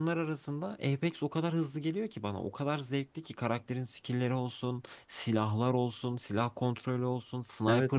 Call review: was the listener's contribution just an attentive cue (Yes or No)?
No